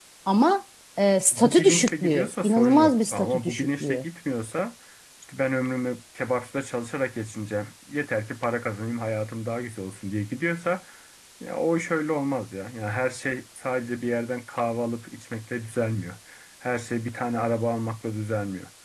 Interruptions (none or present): present